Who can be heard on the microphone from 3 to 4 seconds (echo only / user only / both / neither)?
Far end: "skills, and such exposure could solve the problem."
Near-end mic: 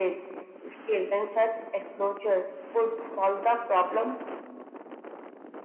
echo only